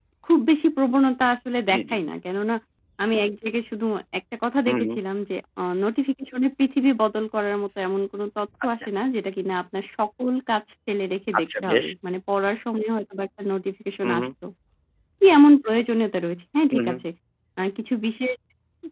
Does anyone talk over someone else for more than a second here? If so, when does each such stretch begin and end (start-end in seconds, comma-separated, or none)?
none